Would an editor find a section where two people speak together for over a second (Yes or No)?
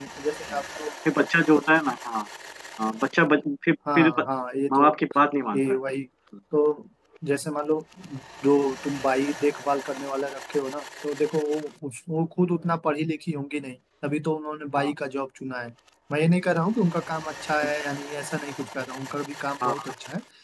No